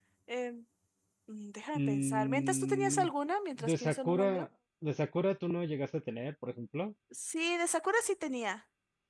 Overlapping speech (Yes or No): Yes